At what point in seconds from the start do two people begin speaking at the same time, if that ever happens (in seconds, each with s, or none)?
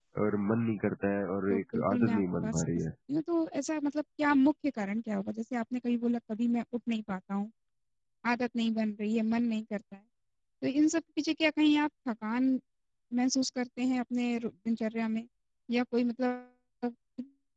1.5 s